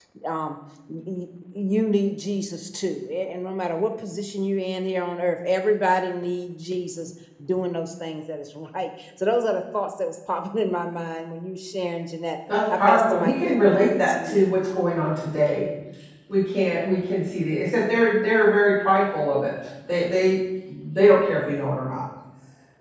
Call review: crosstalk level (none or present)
present